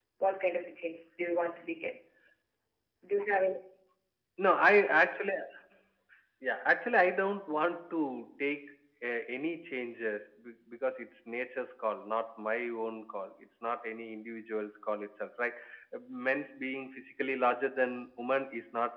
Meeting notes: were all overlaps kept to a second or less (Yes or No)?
Yes